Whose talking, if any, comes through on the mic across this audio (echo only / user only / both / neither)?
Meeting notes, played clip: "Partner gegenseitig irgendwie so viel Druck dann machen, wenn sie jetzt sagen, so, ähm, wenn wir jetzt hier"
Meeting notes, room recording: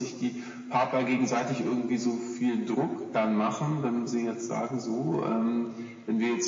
echo only